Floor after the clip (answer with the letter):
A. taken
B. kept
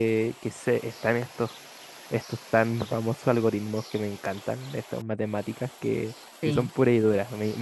B